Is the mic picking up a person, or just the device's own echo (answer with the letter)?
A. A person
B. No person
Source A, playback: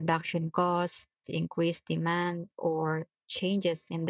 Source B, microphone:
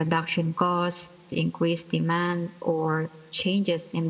B